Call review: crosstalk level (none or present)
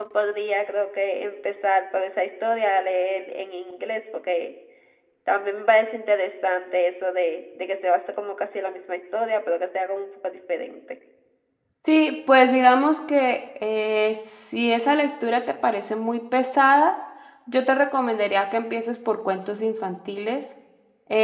none